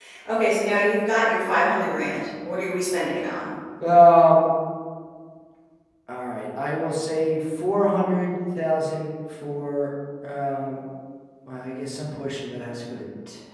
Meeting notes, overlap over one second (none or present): none